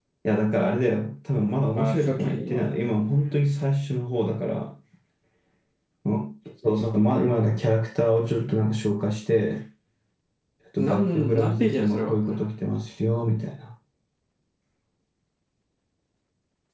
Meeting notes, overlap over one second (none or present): present